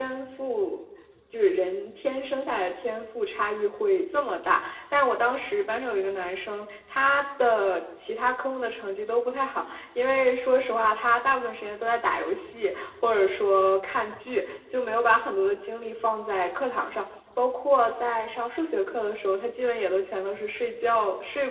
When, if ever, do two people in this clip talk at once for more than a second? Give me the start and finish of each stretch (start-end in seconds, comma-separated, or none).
none